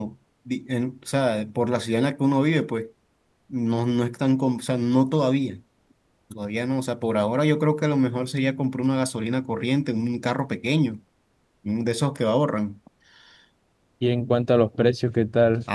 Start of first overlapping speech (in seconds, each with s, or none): none